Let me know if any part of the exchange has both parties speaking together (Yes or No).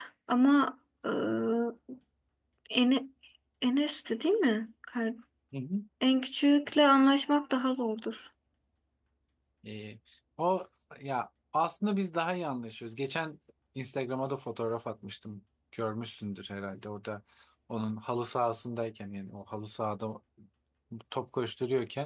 No